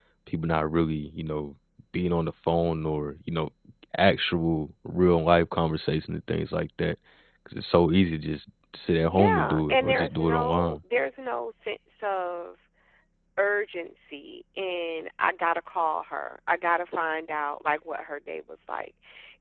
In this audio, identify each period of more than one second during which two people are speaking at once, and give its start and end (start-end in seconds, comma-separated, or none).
9.1-10.8